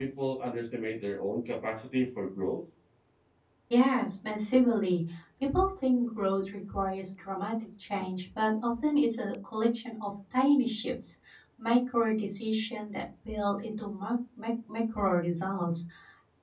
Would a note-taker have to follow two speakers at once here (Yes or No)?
No